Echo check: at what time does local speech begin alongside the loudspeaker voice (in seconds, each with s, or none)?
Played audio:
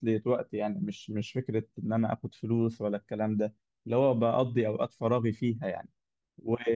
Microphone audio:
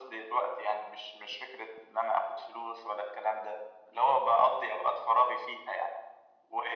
none